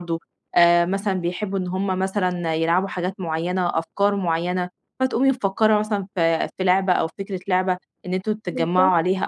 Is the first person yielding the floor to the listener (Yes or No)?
No